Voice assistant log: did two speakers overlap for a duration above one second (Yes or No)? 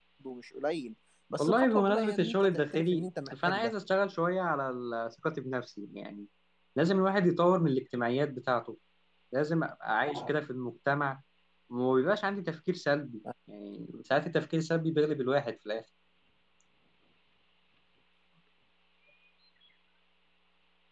Yes